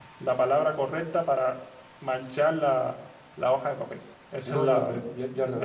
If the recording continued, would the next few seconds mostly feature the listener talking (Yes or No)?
Yes